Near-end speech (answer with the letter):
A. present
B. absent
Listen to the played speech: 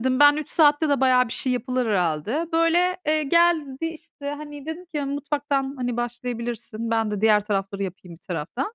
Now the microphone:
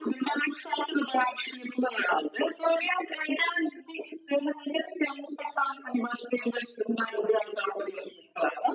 B